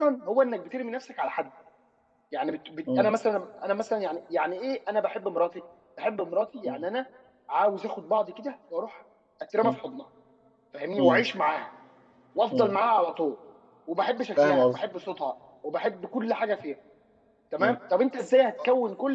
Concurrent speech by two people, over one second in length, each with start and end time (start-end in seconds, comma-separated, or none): none